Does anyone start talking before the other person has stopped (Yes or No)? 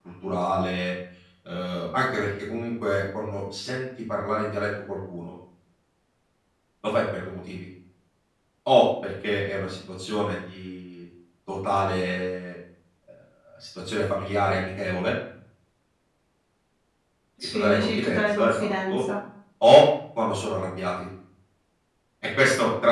Yes